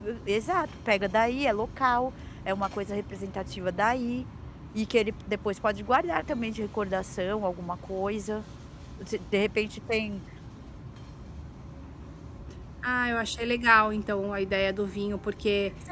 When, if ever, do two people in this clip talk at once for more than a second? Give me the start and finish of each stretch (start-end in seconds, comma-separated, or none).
none